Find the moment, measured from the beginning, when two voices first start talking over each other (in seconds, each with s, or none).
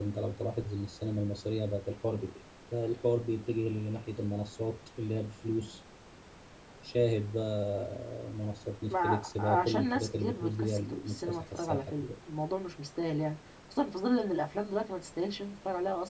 8.9 s